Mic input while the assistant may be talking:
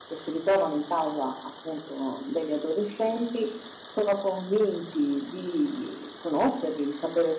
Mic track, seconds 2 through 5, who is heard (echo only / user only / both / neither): user only